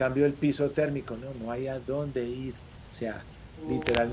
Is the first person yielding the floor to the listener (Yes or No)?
No